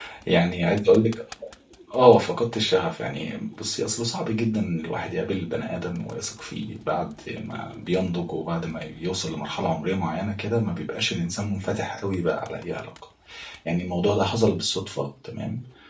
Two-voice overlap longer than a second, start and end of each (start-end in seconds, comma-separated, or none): none